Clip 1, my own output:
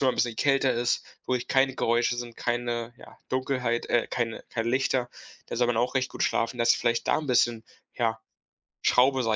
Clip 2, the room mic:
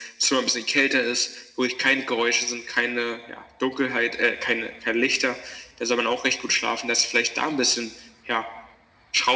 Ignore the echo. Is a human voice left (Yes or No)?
No